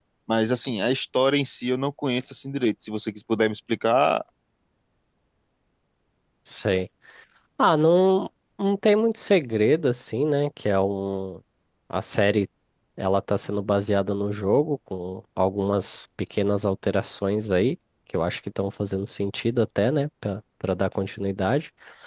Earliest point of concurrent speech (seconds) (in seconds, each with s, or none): none